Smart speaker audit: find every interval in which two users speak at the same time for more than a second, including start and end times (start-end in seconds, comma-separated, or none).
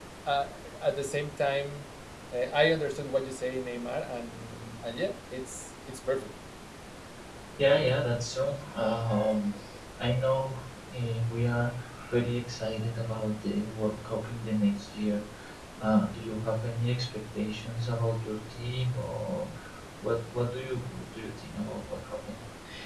none